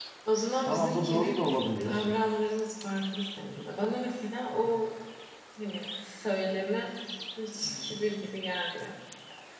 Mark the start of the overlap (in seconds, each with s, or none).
0.6 s